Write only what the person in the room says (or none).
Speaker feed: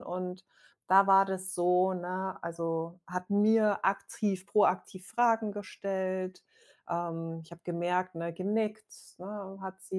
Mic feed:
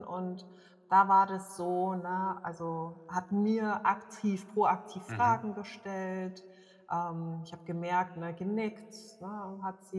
mhm,